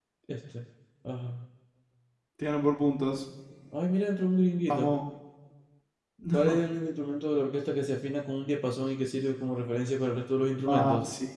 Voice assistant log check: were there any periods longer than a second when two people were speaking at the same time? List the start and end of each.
none

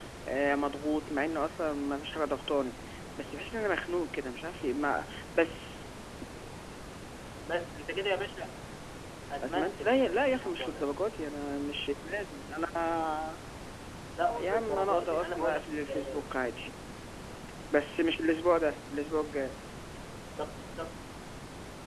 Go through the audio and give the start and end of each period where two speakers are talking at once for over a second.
9.4-10.8, 14.4-16.2

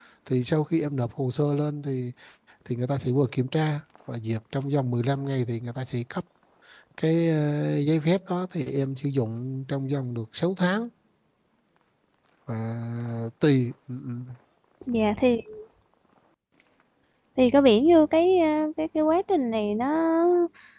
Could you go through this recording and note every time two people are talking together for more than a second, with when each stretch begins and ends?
none

